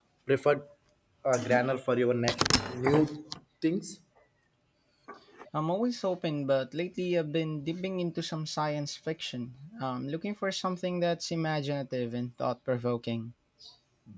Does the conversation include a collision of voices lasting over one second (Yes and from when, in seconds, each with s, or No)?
No